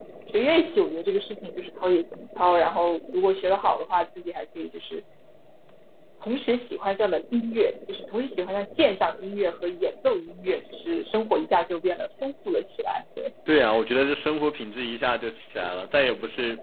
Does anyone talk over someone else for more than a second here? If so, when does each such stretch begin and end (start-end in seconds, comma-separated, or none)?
none